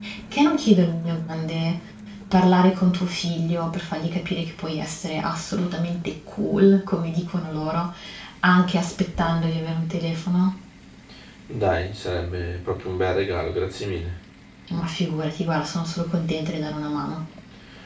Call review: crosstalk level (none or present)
none